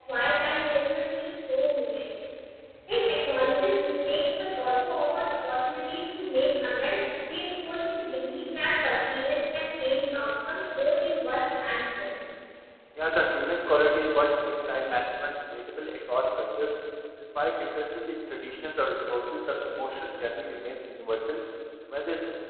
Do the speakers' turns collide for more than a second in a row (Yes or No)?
No